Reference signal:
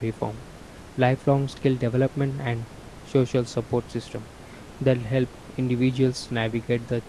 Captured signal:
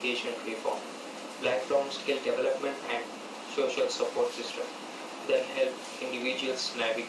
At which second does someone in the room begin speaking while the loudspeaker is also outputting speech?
none

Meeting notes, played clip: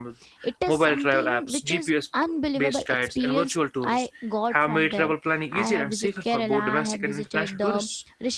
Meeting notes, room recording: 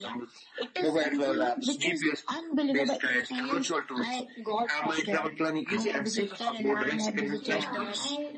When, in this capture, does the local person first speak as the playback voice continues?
7.4 s

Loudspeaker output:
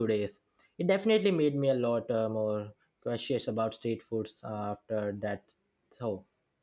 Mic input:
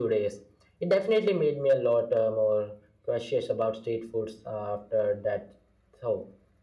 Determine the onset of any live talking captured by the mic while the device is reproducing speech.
none

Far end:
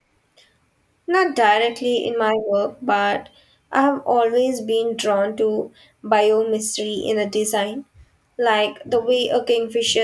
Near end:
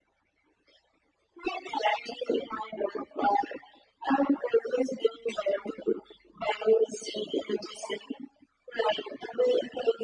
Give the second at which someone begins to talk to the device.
none

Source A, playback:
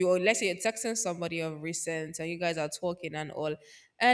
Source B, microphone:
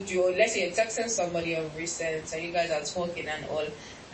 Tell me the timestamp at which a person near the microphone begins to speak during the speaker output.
none

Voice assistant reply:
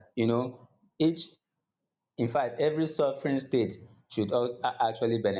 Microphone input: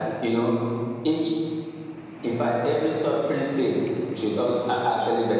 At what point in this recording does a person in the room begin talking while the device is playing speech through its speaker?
none

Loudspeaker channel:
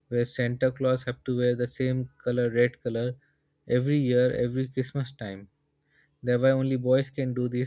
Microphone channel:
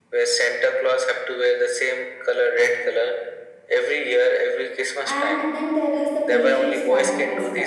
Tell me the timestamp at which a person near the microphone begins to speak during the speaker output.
5.0 s

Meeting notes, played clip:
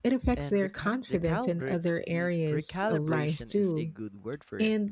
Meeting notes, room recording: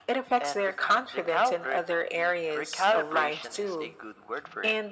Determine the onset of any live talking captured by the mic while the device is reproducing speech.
none

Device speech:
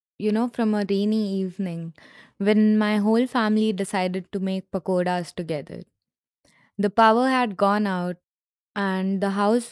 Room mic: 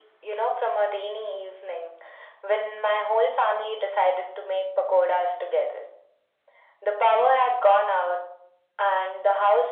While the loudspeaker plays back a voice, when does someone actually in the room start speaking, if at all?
none

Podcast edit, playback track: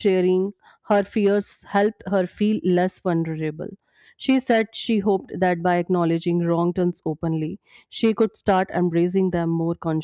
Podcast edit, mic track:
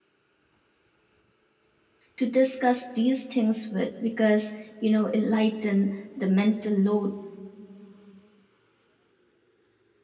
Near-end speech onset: 2.1 s

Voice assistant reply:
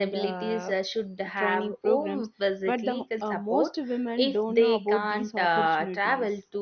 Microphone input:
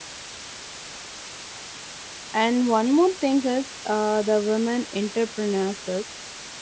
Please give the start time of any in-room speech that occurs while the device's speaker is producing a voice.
2.3 s

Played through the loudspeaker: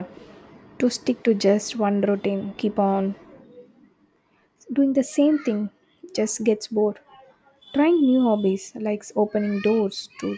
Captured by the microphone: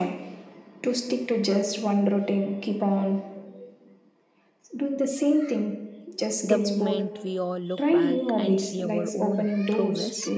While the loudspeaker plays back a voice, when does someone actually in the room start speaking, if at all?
6.5 s

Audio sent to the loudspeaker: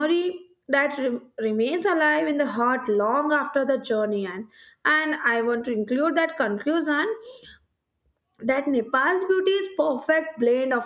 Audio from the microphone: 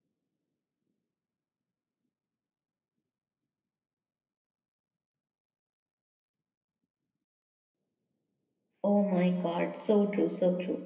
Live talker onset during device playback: 8.8 s

